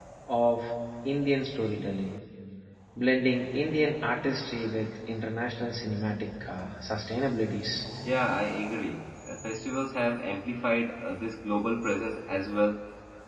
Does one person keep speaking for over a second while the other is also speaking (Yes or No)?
No